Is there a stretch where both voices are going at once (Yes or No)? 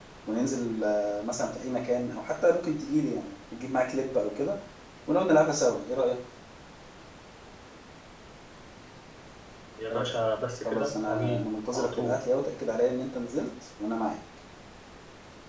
Yes